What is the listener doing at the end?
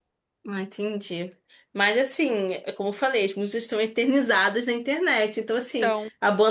listening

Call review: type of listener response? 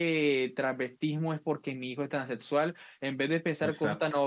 listening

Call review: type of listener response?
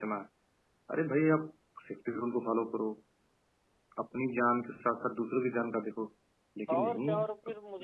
taking over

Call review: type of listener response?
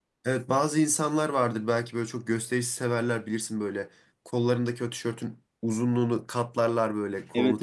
taking over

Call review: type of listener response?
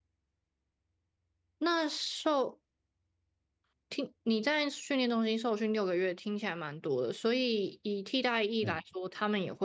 listening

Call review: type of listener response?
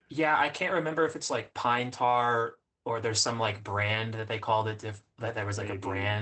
listening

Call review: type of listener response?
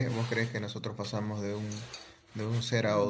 taking over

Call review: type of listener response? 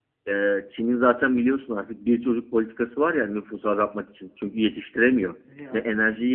listening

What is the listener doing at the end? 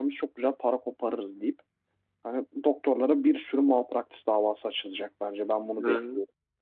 taking over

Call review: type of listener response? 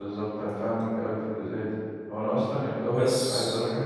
listening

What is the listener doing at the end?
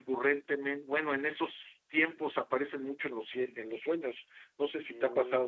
taking over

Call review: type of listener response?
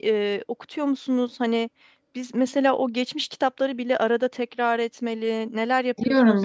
taking over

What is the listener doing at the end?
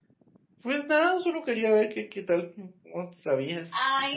taking over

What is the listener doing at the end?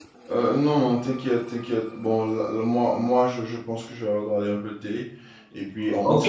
taking over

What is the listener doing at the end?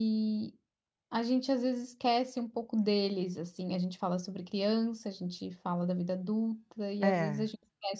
listening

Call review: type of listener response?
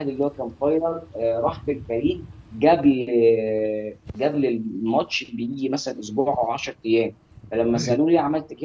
listening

